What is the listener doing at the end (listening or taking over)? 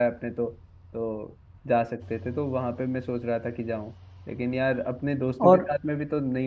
listening